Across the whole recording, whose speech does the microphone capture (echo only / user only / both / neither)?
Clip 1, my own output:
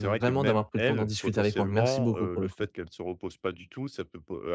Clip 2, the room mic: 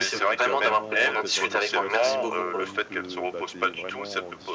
both